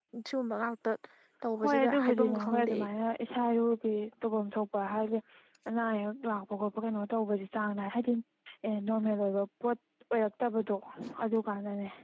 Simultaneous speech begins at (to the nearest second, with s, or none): 2 s